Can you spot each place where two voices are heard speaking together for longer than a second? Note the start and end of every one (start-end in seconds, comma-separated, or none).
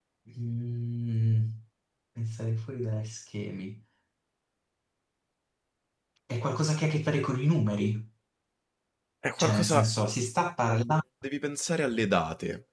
none